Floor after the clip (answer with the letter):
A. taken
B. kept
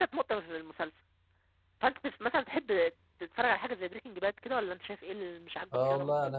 A